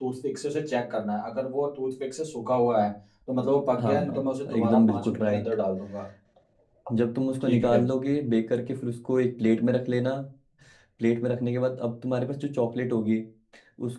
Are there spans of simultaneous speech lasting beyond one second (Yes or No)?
Yes